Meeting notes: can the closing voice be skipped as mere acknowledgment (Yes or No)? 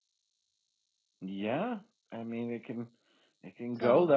Yes